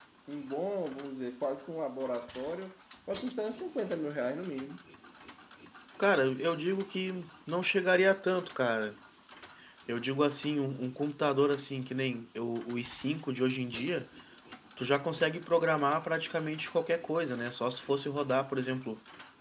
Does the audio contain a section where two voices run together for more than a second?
No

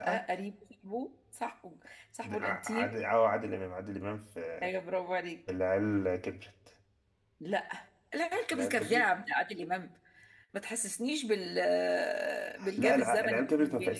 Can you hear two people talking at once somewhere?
Yes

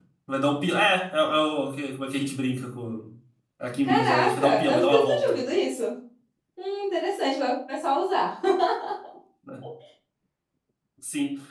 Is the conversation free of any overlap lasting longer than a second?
No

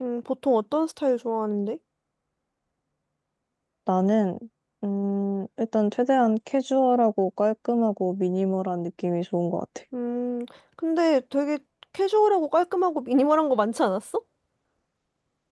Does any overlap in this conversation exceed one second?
No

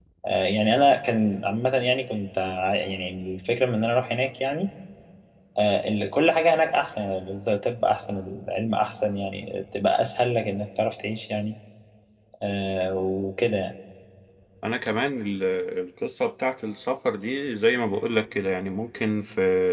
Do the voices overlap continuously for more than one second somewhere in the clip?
No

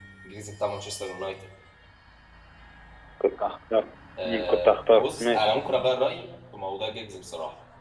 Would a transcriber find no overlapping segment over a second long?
No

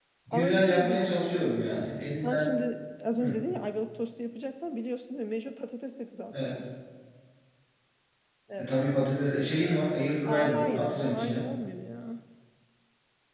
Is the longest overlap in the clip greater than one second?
Yes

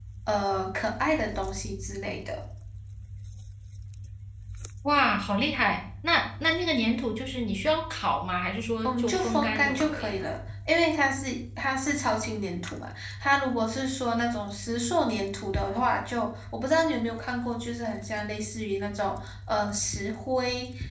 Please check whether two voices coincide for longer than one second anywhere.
Yes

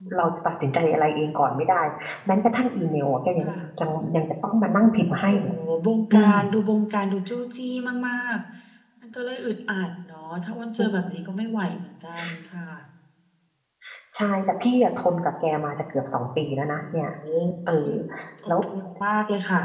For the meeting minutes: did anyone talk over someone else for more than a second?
No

